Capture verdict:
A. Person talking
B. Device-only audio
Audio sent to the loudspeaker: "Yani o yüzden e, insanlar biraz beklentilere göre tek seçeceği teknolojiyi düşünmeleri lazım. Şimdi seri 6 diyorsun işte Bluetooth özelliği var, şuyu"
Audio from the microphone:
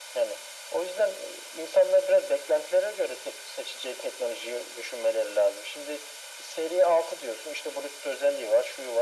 B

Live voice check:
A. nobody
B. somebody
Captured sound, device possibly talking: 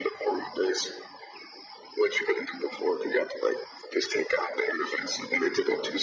A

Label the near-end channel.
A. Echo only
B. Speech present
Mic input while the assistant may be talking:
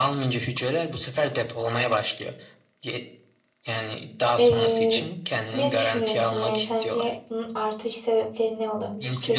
B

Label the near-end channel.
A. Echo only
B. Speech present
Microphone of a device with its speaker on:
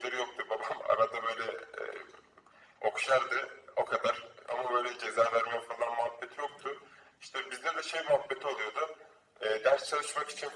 A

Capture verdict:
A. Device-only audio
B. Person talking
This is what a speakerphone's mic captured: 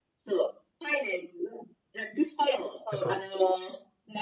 B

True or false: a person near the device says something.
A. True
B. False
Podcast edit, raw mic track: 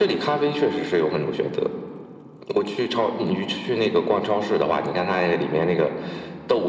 B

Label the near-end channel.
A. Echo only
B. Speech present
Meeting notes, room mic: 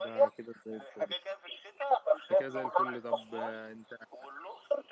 B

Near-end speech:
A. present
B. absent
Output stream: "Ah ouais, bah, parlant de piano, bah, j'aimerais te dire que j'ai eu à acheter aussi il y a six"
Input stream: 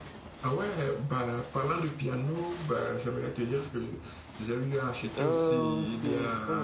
A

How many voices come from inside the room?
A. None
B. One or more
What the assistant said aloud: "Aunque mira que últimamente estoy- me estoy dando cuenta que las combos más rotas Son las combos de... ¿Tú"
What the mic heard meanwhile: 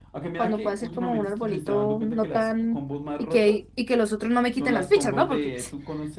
B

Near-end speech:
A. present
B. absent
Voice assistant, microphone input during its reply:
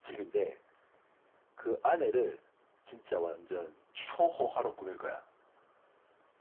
B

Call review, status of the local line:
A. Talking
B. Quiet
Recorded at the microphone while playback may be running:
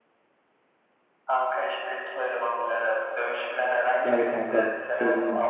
A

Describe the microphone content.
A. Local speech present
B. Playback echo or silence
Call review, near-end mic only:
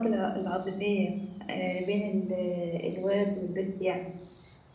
B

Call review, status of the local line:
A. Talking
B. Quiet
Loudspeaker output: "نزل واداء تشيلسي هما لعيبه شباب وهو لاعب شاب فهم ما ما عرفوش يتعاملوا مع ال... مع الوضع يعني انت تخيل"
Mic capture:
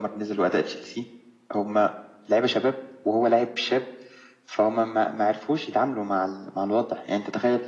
B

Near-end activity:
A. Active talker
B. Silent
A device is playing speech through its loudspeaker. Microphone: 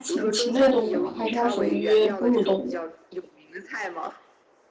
A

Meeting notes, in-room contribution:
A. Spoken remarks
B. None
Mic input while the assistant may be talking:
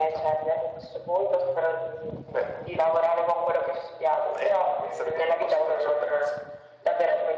B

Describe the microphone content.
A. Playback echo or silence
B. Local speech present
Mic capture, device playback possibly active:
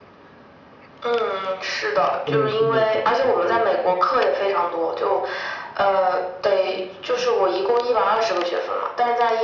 B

